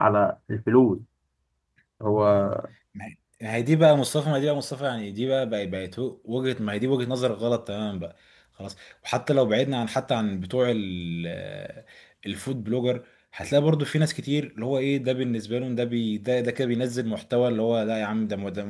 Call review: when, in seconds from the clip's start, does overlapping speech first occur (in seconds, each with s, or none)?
none